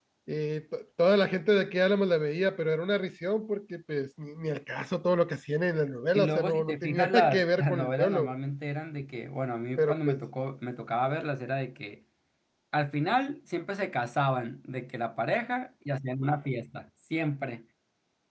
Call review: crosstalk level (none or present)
present